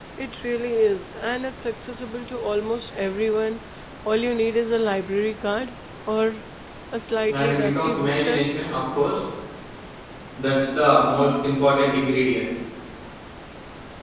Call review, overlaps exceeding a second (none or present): present